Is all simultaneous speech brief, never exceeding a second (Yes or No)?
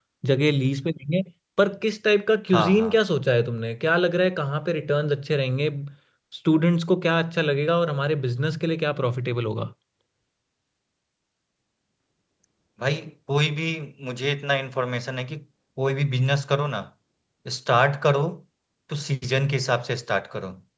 Yes